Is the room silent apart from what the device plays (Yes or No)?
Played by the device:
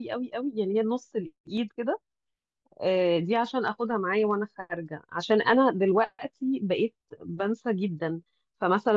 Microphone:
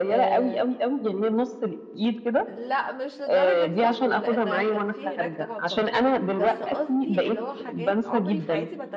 No